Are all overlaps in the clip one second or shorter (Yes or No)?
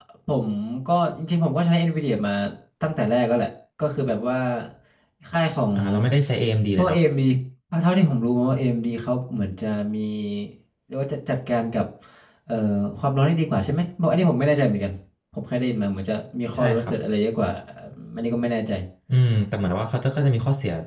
Yes